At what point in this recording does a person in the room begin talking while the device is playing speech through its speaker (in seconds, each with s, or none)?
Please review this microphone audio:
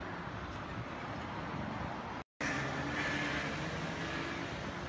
none